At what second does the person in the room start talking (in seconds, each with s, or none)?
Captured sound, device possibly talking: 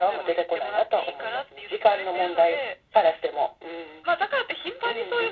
none